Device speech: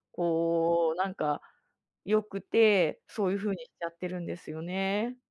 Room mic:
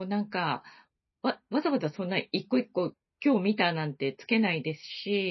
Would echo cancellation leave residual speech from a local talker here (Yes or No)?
Yes